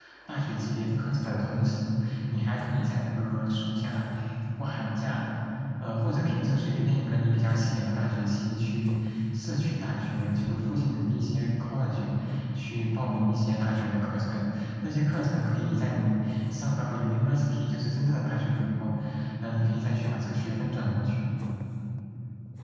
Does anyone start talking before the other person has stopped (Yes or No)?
No